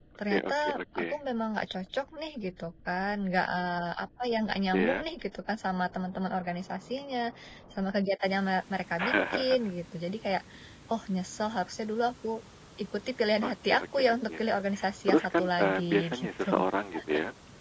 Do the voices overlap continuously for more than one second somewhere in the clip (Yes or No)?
Yes